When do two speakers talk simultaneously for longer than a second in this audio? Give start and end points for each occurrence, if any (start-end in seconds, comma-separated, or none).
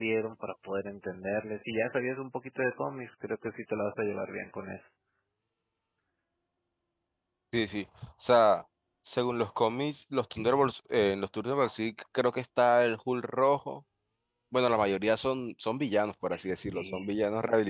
none